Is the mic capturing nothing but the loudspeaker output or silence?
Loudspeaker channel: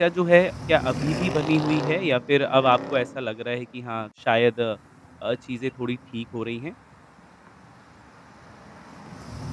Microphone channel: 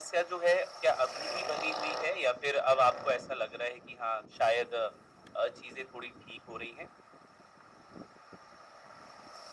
Yes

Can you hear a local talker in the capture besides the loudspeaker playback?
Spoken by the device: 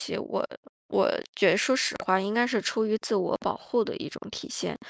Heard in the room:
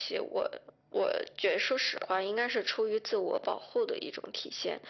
No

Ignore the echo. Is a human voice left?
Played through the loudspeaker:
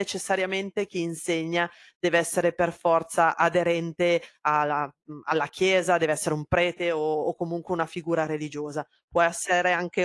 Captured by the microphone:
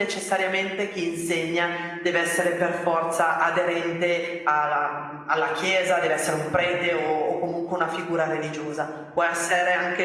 No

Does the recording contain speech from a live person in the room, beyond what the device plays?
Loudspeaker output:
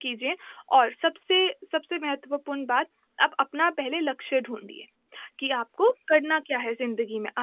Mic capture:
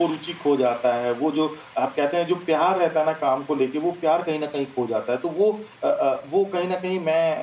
Yes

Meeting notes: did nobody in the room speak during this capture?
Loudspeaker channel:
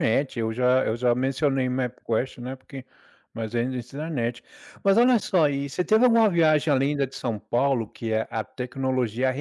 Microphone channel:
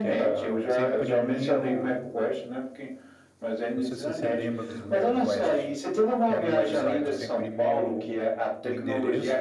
No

